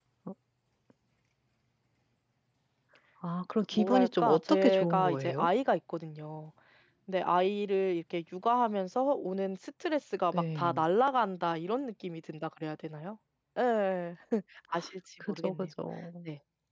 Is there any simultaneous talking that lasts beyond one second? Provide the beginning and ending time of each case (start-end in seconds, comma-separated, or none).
3.7-5.5